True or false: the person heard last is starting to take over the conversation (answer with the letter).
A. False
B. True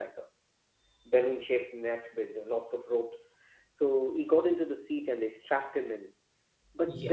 A